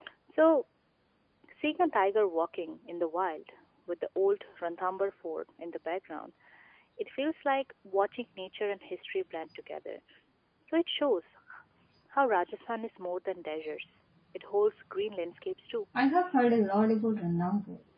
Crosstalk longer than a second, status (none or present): none